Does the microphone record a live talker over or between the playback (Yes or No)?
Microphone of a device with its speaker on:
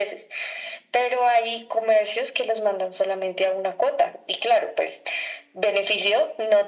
No